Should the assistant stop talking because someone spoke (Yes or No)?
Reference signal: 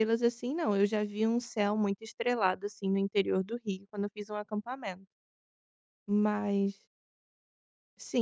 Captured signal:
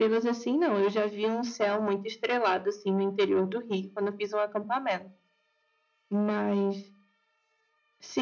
No